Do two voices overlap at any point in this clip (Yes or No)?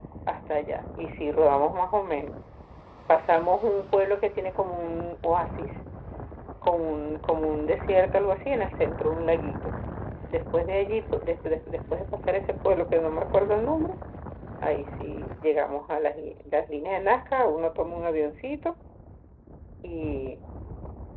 No